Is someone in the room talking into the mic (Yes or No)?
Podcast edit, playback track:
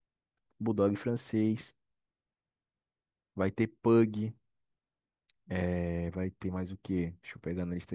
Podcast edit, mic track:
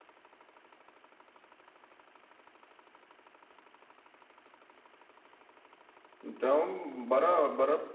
Yes